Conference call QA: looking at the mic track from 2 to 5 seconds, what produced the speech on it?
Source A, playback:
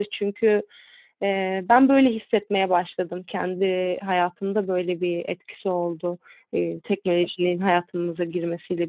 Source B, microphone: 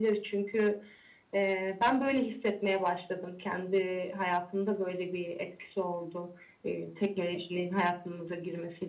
echo only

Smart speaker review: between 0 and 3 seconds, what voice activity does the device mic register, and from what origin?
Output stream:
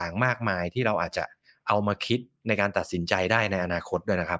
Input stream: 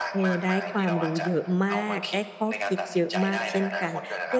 both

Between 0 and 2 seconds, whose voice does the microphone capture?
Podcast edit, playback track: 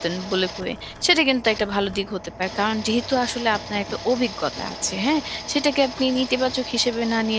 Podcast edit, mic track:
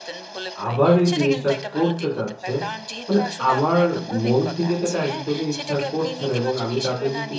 both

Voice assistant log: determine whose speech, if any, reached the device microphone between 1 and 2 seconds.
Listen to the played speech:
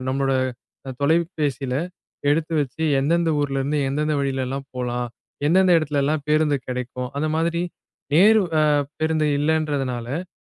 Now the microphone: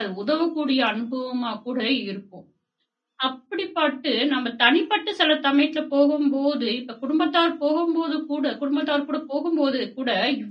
user only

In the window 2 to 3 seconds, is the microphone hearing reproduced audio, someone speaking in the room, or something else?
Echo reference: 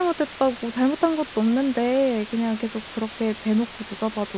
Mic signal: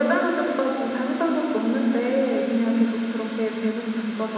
echo only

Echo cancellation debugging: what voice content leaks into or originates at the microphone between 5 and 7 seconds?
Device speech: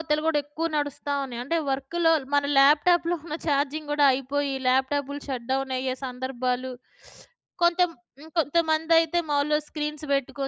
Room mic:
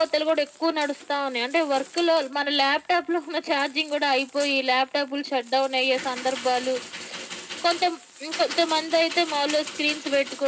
echo only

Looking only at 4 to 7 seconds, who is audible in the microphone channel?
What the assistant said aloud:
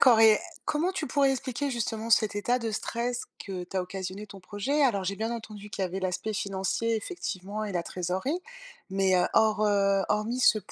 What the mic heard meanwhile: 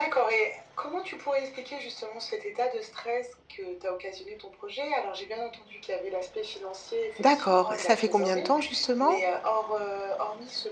echo only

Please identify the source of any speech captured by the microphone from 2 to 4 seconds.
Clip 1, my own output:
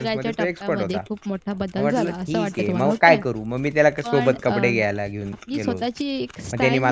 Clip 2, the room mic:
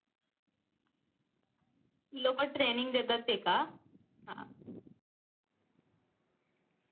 user only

